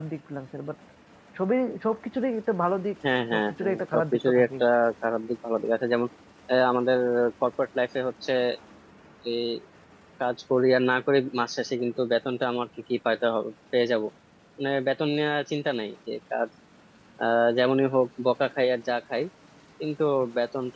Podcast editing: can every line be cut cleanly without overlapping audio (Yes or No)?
No